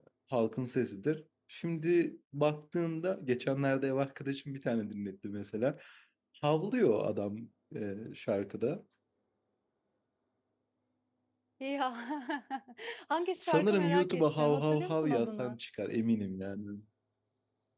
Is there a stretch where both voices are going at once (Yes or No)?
Yes